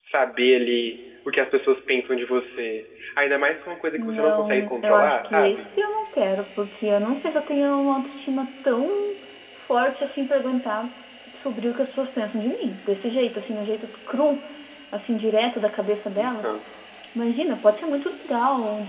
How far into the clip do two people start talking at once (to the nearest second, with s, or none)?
4 s